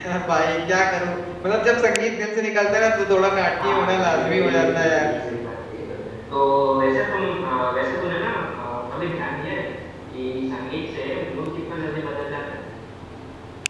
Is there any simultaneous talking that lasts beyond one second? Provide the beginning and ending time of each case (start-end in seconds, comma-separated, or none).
3.6-5.1